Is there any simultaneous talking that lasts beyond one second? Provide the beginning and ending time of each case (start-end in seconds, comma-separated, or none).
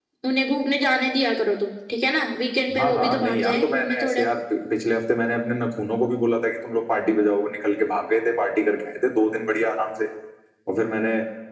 2.8-4.2